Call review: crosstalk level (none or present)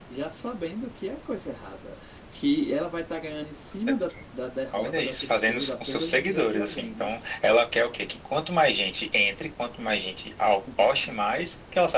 present